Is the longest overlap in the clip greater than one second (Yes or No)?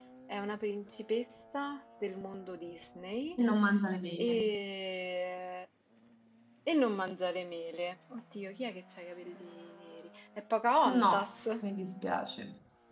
No